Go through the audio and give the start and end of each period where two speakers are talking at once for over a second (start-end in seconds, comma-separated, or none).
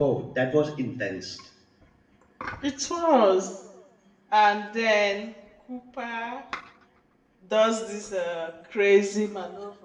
none